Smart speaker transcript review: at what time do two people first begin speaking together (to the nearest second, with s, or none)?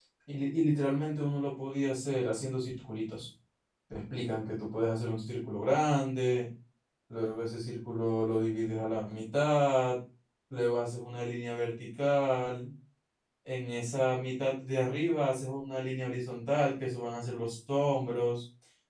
none